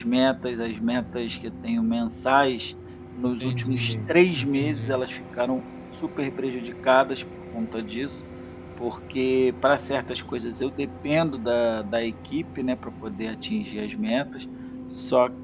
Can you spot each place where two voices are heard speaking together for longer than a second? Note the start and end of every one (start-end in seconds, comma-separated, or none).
3.4-5.0